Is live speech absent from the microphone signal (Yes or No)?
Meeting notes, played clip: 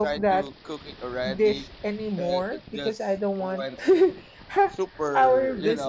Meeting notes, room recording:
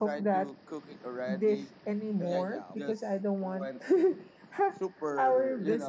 No